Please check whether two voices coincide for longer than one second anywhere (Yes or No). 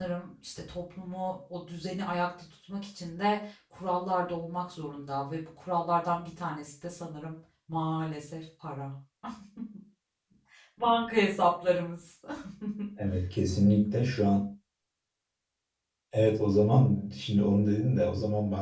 No